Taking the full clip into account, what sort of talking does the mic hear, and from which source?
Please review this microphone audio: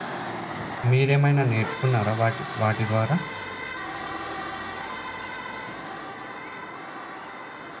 user only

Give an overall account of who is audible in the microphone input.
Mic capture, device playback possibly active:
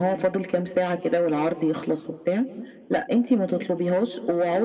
echo only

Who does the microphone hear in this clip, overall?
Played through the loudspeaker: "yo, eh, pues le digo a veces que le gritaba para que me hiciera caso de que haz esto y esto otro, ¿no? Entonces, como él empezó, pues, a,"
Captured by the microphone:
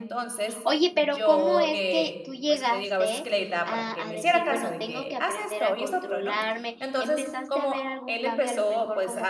both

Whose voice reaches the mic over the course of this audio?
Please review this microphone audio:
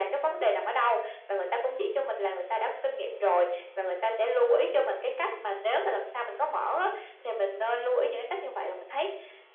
echo only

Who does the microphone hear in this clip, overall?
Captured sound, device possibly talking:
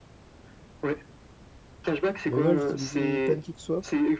both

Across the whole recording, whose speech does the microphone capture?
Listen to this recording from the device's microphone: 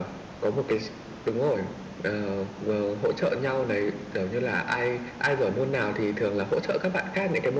echo only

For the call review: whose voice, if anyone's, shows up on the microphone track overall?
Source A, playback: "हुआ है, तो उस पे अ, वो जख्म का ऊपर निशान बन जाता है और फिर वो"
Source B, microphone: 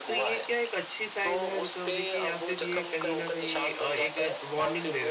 both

